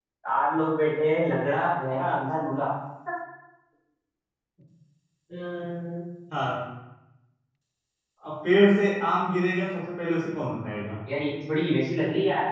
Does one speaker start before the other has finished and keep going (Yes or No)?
No